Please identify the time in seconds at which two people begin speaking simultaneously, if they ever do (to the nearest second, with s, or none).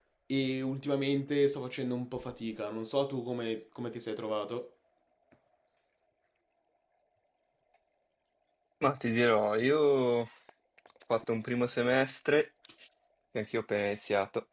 none